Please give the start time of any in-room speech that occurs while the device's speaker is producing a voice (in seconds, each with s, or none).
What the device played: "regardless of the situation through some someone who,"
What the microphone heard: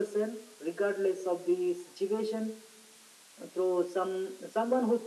none